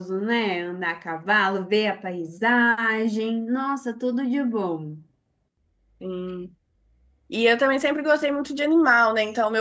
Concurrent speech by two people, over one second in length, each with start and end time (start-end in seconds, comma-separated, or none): none